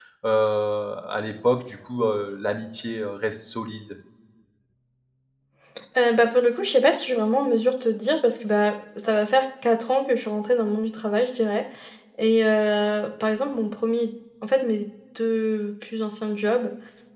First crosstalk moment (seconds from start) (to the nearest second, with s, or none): none